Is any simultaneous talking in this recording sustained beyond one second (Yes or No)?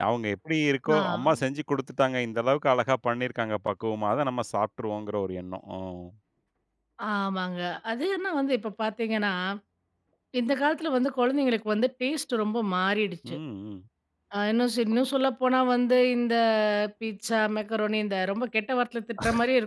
No